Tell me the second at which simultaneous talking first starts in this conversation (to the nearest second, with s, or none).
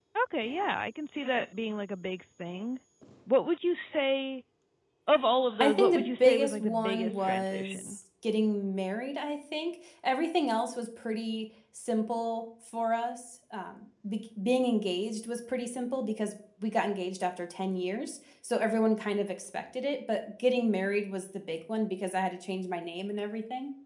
6 s